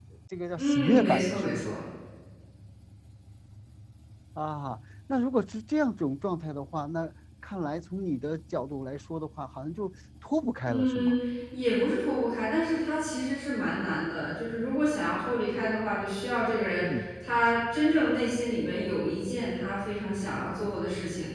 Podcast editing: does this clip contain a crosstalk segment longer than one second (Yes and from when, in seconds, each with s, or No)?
Yes, from 0.6 s